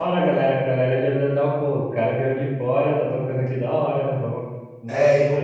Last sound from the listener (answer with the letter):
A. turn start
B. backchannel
A